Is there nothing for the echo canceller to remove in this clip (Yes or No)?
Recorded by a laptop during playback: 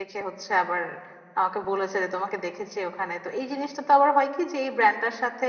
Yes